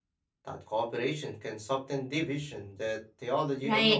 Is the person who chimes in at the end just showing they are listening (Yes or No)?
No